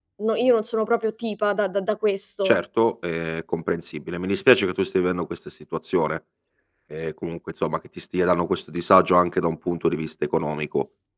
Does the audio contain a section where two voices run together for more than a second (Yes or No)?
No